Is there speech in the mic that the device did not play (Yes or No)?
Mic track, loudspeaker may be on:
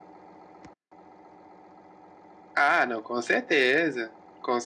No